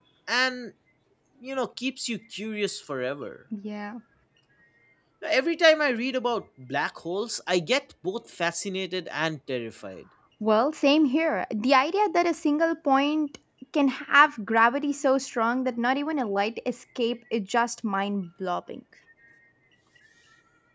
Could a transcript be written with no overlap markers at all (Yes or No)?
Yes